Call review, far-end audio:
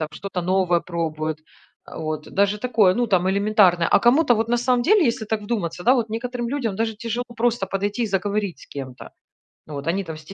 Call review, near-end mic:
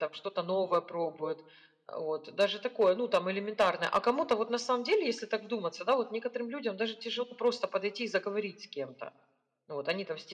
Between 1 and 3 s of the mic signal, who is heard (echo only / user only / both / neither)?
echo only